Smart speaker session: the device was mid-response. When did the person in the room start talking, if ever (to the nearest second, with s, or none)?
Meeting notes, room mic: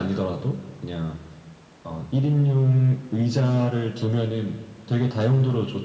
none